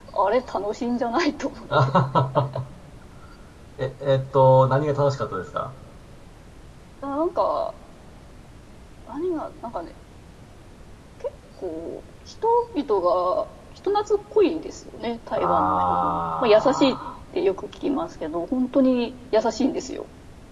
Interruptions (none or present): present